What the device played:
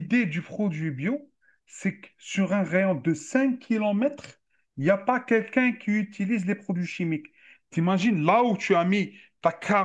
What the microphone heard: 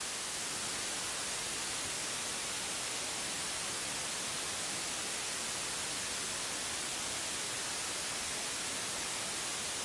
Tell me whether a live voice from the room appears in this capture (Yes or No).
No